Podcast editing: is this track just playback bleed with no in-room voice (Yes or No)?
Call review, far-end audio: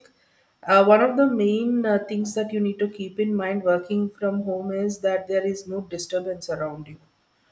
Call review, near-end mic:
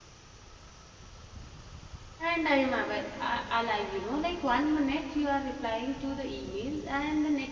No